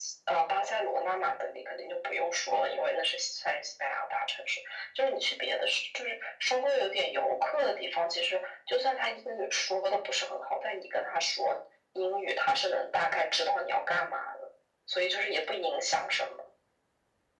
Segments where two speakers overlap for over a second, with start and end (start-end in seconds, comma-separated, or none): none